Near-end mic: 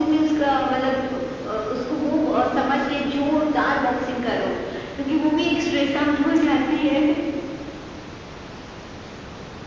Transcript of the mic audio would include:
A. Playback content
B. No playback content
A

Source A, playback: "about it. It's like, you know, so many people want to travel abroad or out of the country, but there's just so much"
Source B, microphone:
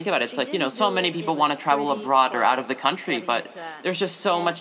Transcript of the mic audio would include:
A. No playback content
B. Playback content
B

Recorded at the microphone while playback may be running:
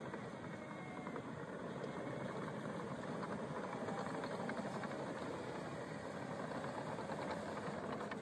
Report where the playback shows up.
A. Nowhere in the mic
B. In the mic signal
A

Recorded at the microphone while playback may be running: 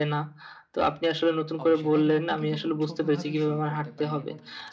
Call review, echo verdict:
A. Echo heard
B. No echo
A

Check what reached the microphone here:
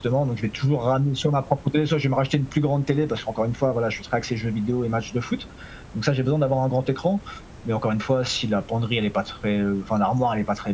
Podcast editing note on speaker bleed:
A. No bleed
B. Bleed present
B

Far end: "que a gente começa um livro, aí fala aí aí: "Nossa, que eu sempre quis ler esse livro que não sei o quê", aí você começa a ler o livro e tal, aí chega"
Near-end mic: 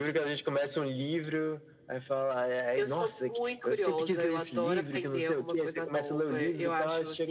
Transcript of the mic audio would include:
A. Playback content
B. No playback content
A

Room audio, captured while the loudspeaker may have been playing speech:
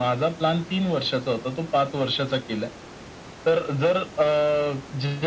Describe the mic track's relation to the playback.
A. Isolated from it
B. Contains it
B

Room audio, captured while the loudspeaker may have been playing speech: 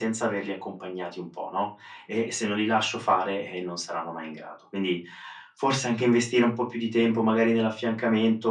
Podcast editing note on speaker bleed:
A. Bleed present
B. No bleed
A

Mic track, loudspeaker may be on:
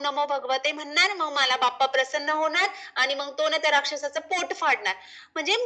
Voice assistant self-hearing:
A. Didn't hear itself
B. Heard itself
B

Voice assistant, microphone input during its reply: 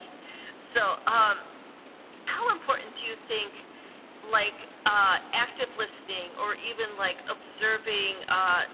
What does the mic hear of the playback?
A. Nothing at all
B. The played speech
B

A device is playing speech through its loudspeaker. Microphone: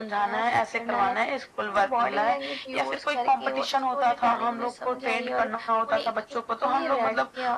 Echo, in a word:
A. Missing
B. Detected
B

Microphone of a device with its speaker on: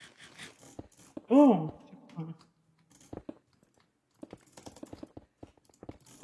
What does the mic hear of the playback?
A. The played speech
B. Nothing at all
B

